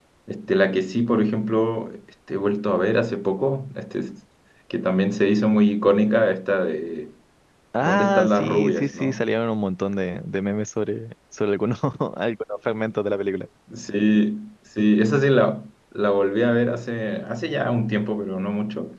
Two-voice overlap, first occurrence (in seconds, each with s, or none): 7.8 s